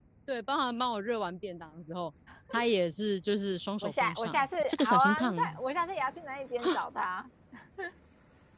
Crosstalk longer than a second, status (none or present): present